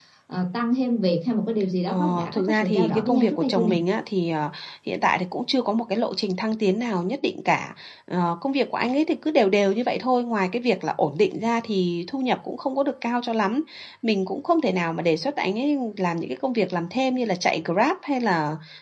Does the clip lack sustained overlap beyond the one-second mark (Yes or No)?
No